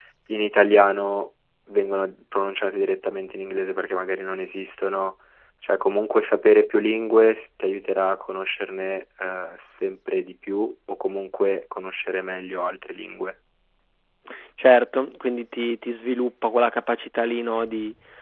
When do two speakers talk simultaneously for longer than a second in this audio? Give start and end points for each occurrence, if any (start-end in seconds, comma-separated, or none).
none